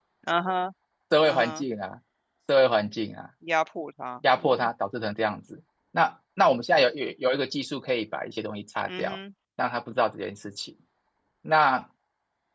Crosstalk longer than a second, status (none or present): none